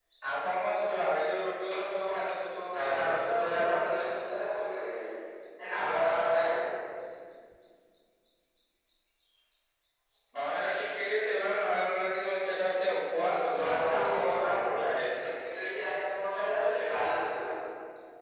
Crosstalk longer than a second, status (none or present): present